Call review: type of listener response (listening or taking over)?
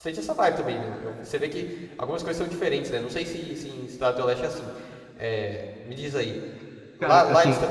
listening